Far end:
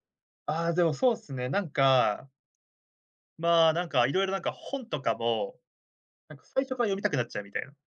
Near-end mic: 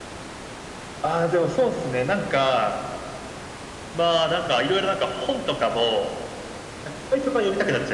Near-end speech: none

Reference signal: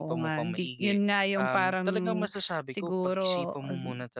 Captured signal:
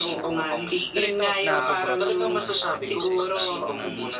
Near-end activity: present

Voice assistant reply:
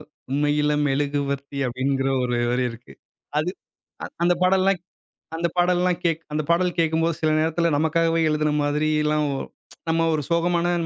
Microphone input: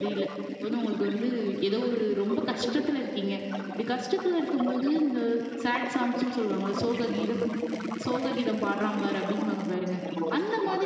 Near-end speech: present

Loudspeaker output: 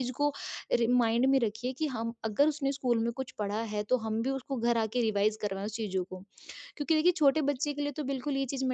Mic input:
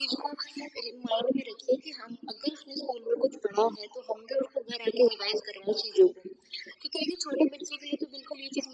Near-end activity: none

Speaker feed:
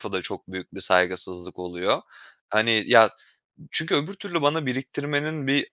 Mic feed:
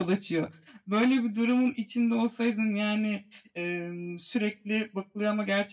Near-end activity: present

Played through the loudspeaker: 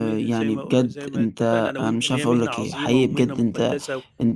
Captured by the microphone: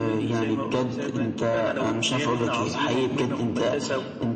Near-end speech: none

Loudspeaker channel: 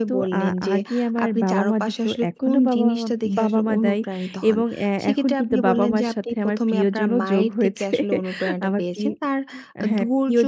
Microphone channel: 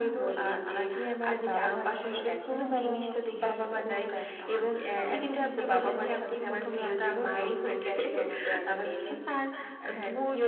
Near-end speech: present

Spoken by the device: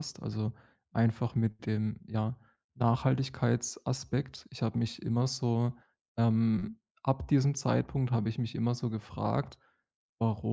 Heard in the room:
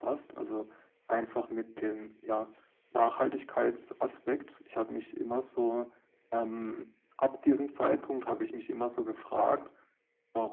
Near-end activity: none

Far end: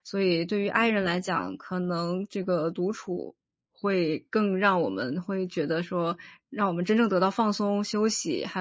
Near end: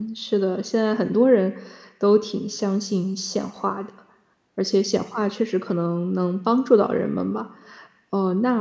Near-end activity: present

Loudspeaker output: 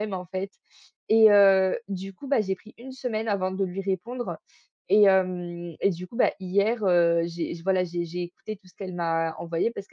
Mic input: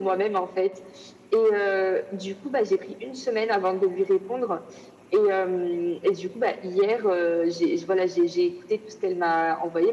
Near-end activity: none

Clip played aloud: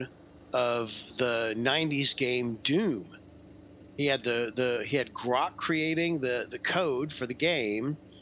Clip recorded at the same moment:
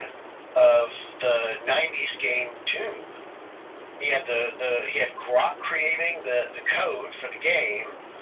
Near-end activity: none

